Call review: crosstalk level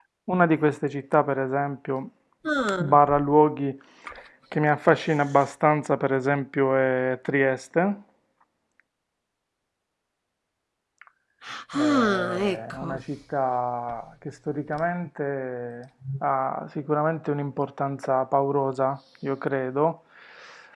present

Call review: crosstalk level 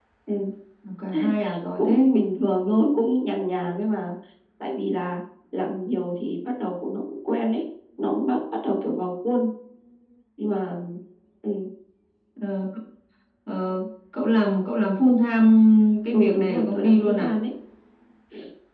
present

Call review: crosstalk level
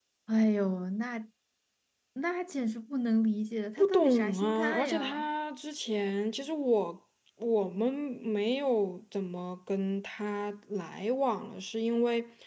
present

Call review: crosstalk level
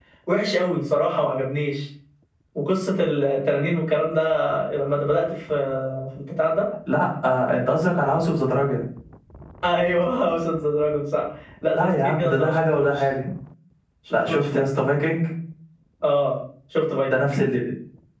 present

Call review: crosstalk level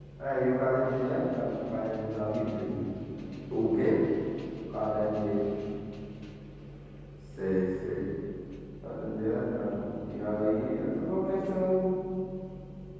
none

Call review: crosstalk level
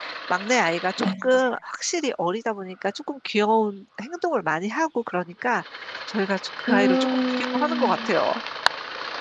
present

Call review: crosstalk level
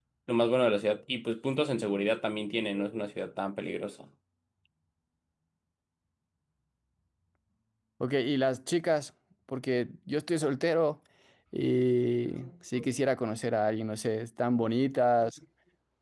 none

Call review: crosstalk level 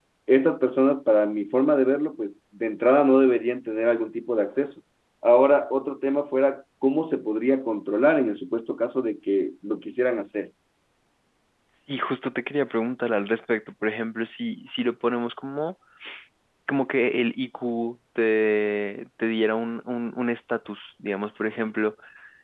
none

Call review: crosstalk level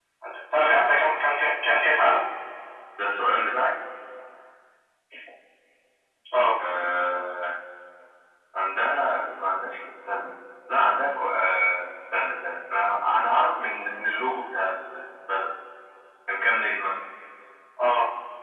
none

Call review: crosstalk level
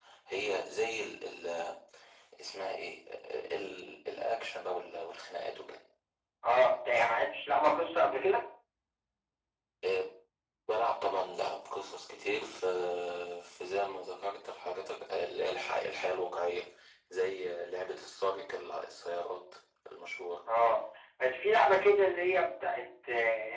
none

